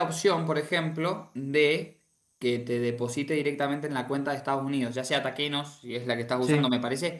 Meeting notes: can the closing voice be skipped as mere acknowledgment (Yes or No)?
Yes